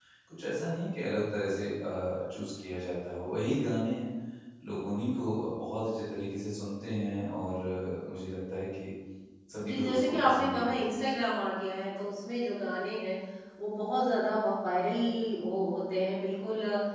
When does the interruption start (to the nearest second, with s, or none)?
10 s